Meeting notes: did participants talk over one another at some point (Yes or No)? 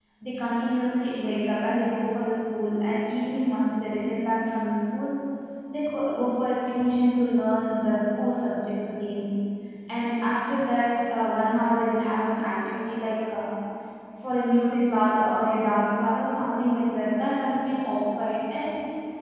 No